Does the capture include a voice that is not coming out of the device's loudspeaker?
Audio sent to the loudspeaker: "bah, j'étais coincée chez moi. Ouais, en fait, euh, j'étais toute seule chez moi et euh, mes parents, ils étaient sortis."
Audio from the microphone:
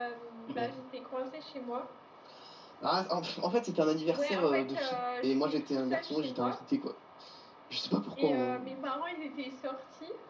Yes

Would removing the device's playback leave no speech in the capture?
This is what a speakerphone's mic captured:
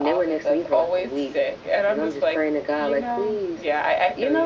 Yes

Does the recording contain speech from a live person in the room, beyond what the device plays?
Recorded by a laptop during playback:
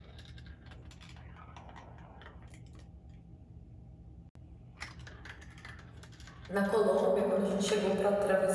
Yes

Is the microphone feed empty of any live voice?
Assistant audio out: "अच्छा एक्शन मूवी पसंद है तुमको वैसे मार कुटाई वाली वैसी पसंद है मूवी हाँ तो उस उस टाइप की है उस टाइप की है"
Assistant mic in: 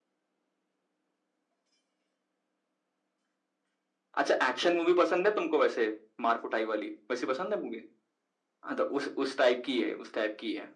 Yes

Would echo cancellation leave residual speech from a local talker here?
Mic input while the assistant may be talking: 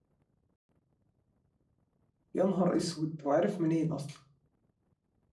Yes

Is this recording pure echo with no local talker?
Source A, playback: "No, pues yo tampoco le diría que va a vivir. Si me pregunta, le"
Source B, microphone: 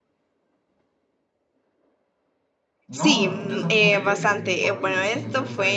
No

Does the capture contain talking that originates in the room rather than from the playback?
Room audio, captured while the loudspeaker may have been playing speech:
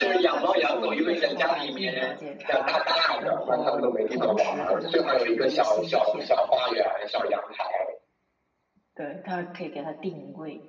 Yes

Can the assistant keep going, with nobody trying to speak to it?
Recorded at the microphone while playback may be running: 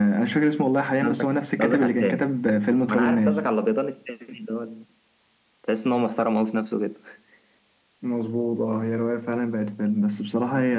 Yes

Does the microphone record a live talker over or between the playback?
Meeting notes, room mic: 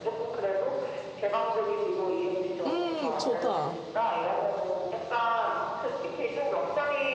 Yes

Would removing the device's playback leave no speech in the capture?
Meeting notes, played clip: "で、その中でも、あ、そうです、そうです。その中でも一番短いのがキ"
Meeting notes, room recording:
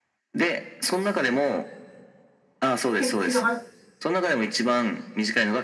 No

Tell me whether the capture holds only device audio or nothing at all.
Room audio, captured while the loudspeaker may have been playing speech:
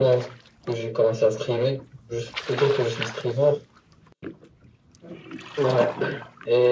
Yes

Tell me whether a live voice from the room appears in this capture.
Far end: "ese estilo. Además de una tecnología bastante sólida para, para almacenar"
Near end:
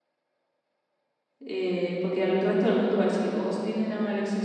Yes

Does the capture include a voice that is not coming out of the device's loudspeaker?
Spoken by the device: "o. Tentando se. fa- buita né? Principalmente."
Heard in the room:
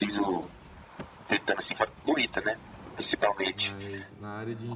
Yes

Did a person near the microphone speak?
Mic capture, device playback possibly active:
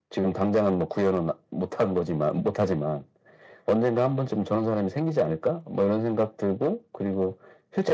No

